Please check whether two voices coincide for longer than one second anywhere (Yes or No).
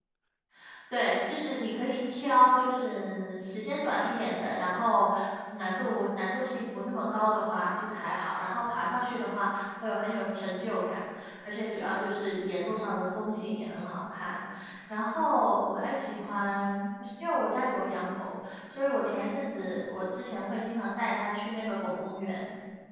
No